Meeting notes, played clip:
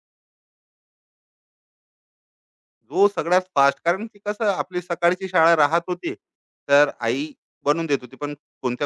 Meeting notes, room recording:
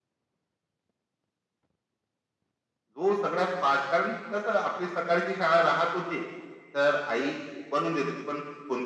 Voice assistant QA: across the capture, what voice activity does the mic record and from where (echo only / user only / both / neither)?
echo only